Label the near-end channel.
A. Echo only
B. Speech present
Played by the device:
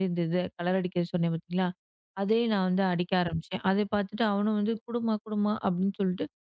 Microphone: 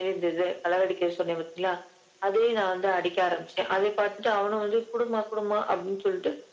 A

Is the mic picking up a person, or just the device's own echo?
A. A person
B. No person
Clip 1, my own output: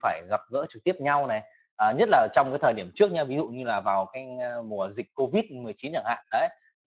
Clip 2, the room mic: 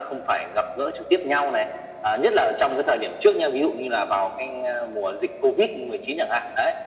B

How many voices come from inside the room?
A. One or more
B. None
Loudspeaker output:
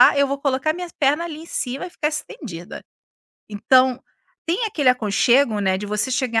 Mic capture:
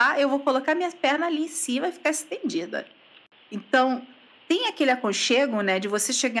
B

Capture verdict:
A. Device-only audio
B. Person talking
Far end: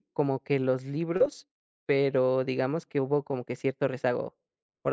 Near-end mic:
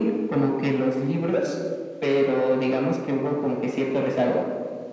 A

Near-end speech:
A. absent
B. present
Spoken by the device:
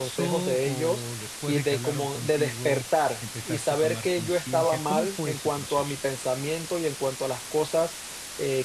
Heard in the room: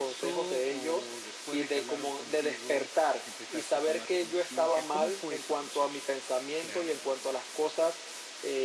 B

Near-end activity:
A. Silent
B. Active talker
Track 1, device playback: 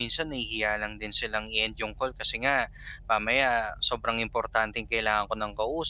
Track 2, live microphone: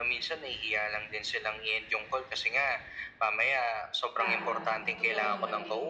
B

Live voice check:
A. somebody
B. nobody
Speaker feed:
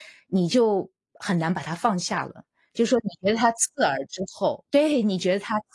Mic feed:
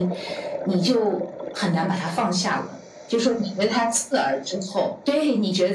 B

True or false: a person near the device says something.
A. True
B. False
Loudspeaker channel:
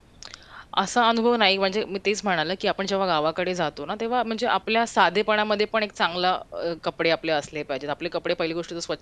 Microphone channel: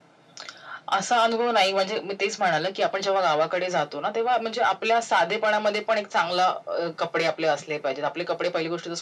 B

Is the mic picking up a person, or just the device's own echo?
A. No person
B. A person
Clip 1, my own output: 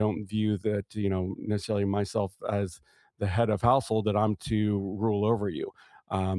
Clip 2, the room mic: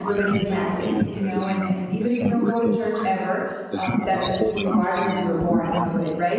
B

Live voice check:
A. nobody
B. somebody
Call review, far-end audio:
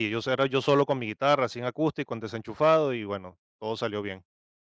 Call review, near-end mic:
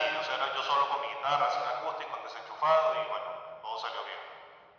A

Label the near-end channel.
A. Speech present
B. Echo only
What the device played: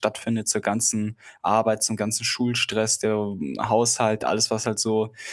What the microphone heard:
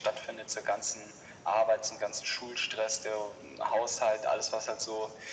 B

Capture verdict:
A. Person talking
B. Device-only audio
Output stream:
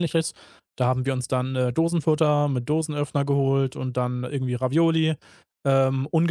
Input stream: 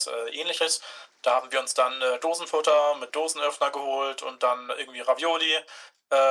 B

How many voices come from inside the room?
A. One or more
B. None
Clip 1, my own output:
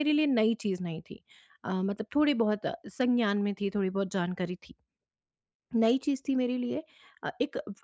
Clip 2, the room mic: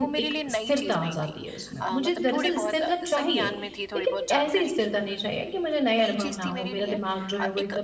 A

